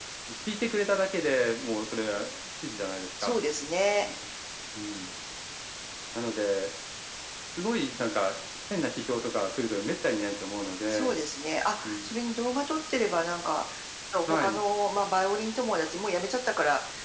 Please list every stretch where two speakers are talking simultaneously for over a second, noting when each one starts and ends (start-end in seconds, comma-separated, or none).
none